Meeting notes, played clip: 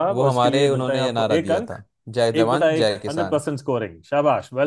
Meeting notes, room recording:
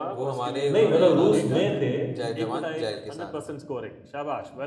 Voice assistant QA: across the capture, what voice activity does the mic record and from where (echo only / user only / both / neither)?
both